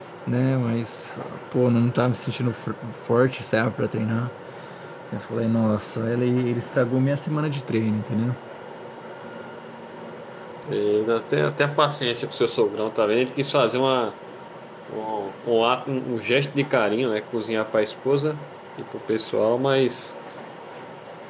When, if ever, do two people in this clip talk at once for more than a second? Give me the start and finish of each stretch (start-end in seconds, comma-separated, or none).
none